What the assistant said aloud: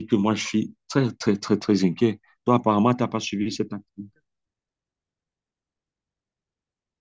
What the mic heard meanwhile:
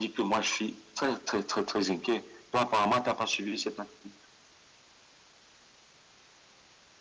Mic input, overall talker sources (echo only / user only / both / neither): echo only